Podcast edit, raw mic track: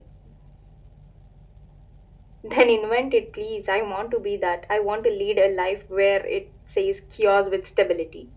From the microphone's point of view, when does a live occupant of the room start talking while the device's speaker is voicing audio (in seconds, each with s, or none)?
none